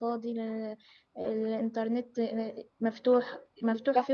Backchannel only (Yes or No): Yes